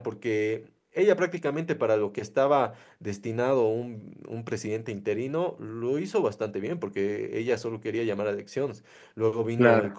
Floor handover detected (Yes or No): No